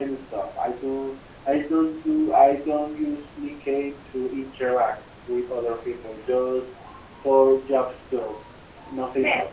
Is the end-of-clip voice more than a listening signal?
Yes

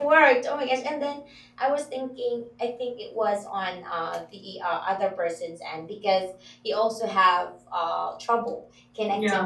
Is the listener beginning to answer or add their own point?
No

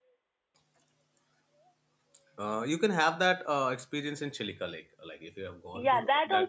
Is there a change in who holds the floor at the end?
Yes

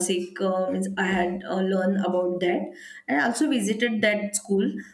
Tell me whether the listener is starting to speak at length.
No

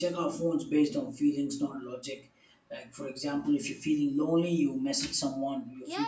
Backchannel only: Yes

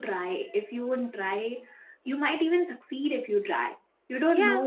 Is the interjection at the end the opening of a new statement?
No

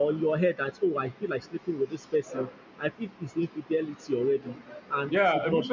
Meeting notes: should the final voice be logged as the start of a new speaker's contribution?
Yes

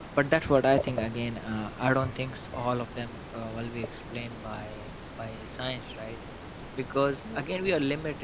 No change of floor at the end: Yes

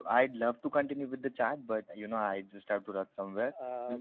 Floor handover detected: Yes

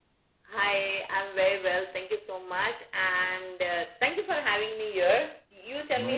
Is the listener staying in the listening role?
No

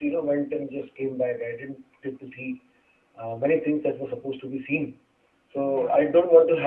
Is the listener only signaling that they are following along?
Yes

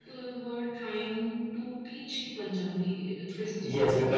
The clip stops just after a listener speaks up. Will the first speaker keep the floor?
No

